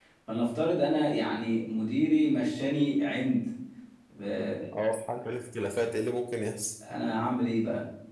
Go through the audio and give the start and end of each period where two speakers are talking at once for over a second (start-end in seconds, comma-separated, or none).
none